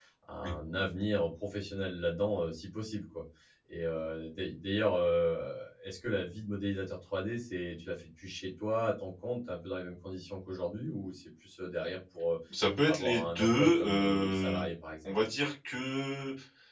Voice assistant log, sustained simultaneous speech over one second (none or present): present